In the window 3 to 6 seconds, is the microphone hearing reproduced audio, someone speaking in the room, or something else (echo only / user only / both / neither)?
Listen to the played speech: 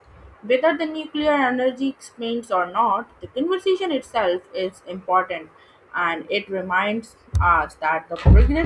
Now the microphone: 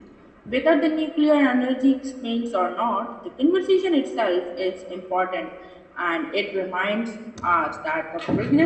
echo only